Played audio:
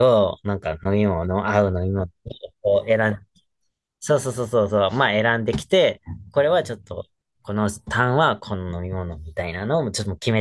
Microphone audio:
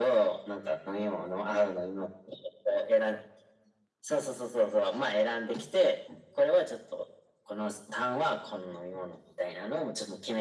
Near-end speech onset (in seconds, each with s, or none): none